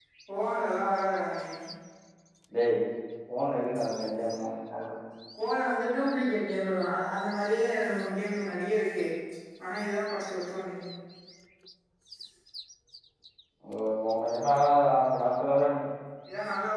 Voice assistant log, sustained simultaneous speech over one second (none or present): none